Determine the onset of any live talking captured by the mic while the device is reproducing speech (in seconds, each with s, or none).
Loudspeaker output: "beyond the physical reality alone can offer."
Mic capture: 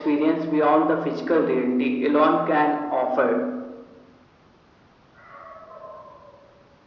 none